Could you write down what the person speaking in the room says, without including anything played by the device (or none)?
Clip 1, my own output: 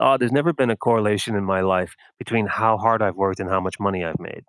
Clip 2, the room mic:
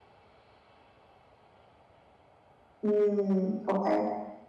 Mm, okay.